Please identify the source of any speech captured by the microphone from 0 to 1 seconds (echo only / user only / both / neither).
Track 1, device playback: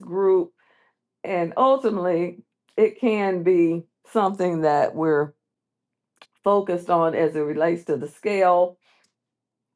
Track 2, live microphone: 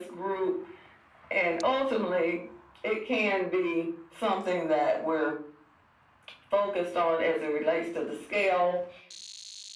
echo only